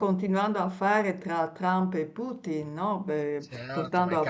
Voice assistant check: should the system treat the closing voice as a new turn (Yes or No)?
Yes